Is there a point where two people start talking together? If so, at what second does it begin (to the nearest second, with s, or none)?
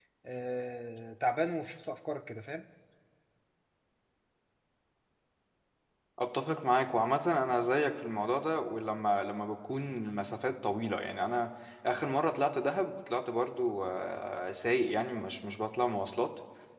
none